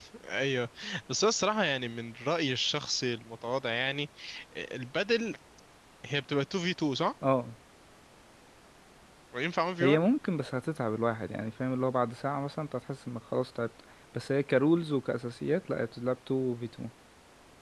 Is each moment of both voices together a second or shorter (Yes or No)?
Yes